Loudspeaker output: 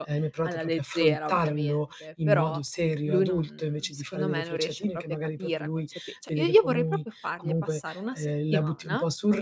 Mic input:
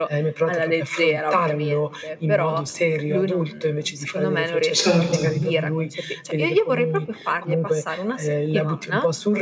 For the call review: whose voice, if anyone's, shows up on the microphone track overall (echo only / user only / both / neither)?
both